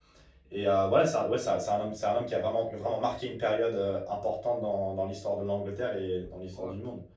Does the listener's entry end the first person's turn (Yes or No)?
Yes